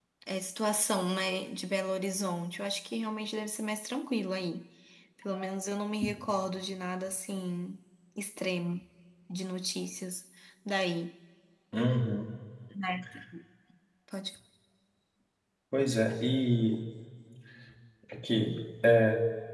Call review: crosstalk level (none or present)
none